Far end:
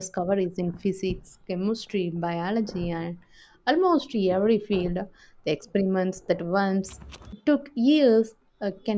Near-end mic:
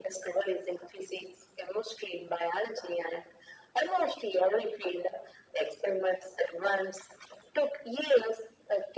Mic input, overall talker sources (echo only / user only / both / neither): echo only